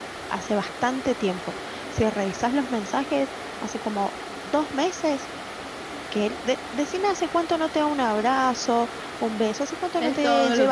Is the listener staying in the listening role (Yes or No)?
No